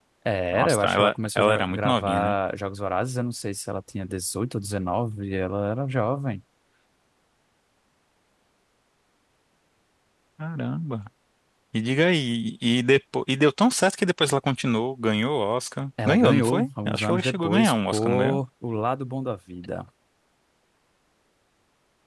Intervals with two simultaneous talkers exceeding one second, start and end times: 0.5-2.3, 16.1-18.4

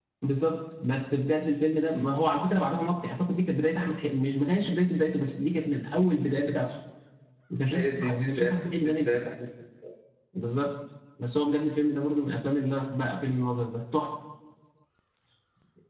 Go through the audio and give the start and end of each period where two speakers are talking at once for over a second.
7.7-9.2

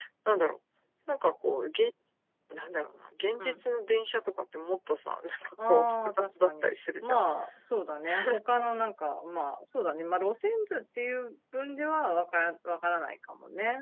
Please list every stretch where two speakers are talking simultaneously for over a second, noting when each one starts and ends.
5.7-7.2

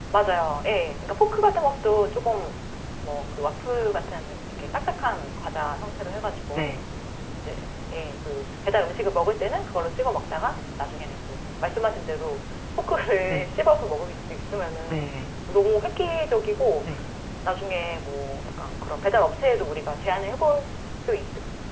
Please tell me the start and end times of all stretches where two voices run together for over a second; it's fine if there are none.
none

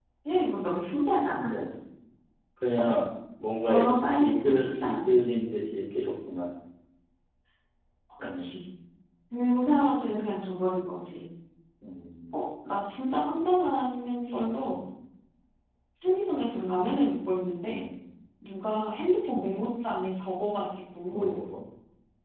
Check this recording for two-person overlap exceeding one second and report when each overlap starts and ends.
3.7-5.2

